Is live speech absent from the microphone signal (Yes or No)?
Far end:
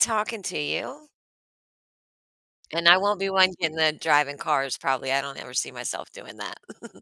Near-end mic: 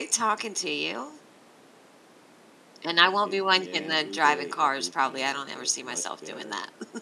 No